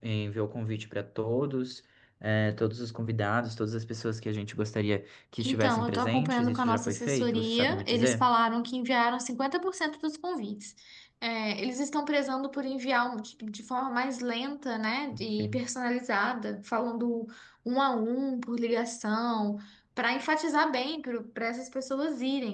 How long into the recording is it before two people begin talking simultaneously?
5.4 s

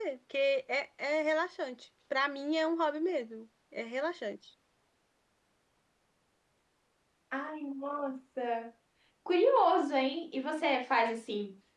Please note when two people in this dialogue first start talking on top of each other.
none

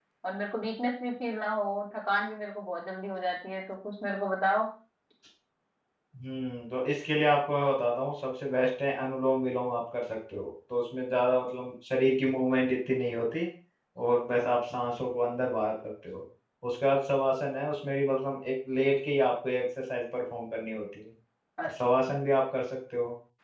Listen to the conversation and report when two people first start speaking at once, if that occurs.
none

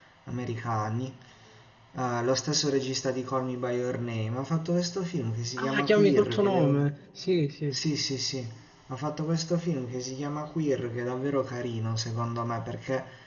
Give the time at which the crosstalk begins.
5.6 s

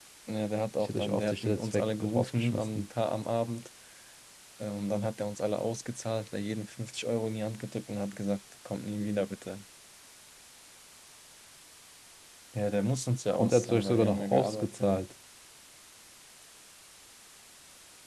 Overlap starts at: 0.8 s

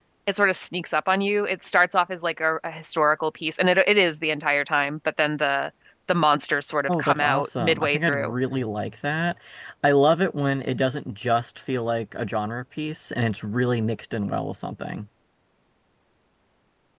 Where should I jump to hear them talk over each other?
6.9 s

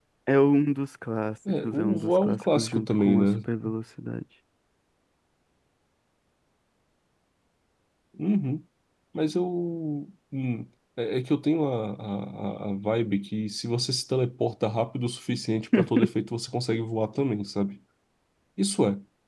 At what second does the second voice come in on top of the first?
1.6 s

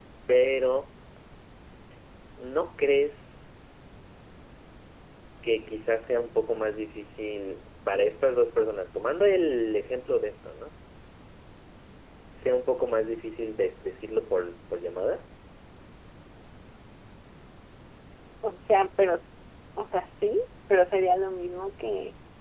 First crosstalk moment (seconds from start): none

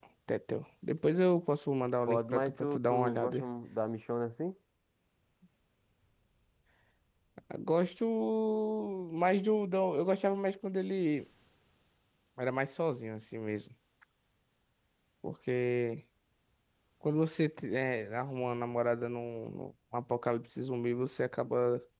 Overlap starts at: 2.1 s

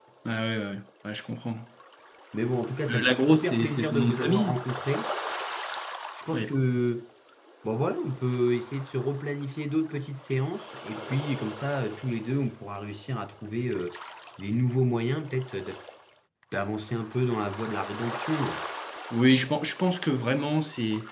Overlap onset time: 2.9 s

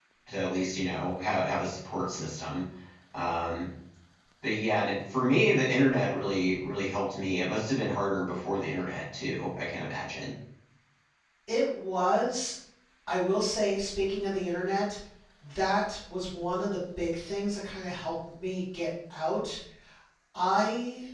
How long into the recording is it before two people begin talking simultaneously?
none

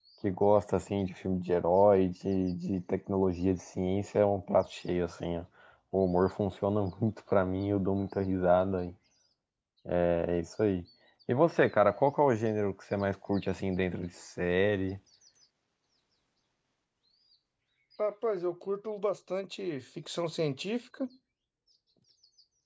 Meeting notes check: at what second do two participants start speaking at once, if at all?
none

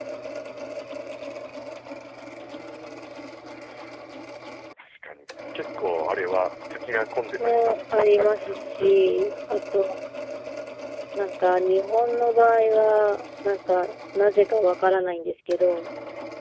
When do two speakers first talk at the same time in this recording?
7.4 s

